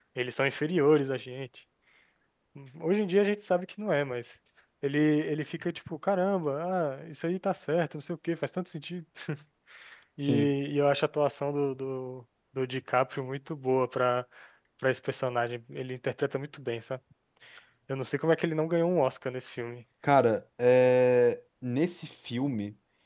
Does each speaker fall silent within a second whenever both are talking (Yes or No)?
Yes